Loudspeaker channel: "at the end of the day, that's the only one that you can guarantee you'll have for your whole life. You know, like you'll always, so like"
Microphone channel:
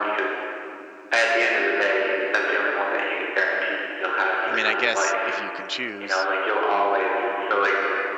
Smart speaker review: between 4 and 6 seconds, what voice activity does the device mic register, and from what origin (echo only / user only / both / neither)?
both